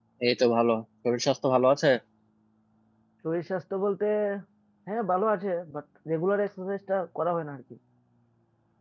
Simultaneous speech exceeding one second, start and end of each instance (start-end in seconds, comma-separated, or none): none